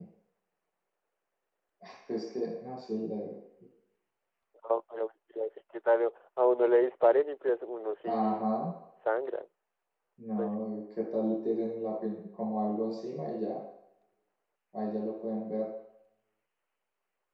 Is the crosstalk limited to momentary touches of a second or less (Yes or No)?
Yes